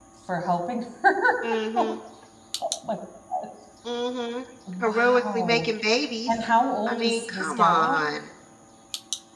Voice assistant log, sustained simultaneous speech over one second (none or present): present